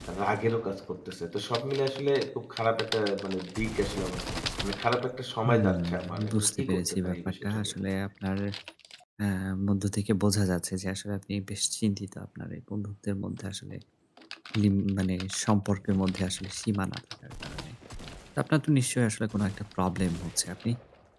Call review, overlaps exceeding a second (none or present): present